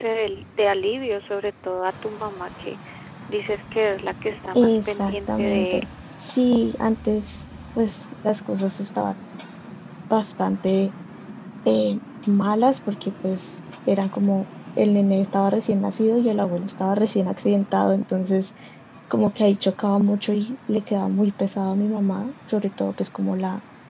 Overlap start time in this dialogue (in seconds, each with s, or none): 4.5 s